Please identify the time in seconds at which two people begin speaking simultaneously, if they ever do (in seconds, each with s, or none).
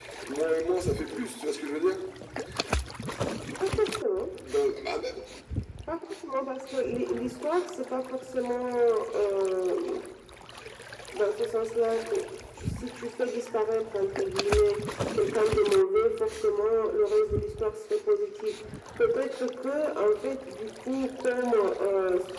none